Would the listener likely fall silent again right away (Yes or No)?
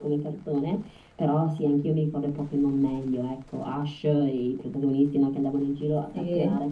Yes